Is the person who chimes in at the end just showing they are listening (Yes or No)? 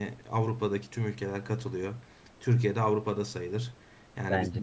Yes